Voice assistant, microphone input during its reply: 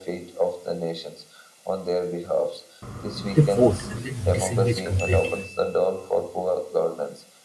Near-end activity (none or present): present